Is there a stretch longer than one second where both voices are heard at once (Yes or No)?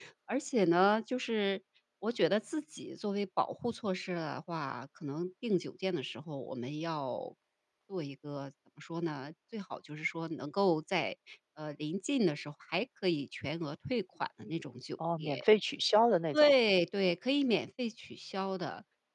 No